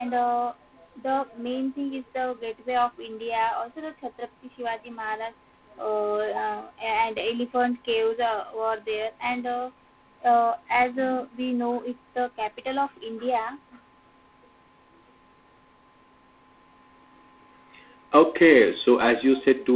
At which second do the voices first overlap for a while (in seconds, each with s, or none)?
none